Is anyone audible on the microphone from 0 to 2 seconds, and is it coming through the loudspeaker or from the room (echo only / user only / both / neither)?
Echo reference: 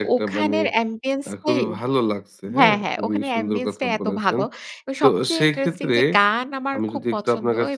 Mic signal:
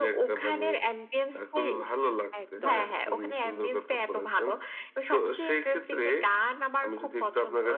echo only